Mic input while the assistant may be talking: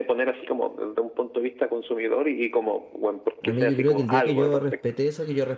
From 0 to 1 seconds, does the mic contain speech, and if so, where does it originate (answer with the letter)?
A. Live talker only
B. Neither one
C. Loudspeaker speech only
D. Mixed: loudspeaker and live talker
C